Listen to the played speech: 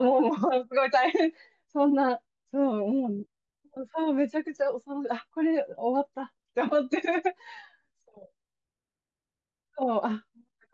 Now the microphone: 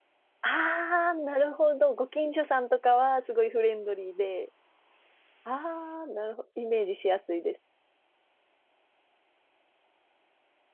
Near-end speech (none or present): present